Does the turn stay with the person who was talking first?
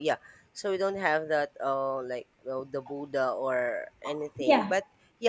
Yes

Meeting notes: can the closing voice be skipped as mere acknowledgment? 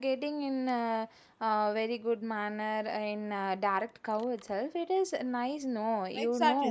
No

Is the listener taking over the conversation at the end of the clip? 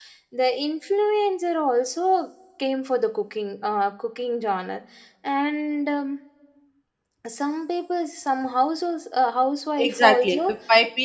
Yes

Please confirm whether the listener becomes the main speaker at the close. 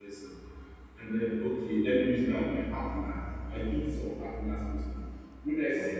No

